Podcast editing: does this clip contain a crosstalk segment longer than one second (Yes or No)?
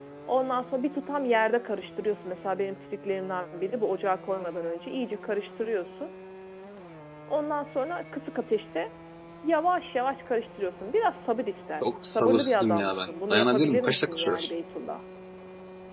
Yes